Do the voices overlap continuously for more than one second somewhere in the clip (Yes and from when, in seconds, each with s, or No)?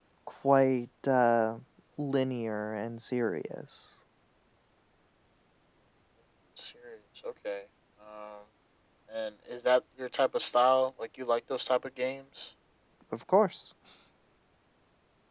No